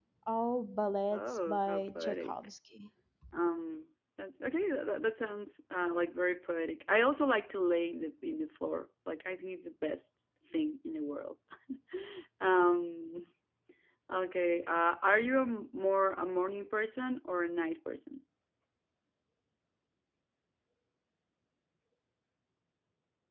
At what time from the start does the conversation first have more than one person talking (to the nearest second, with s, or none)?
1 s